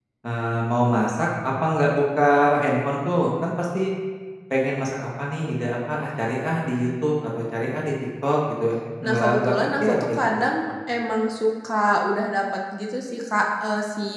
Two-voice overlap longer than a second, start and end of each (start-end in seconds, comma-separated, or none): 9.0-10.4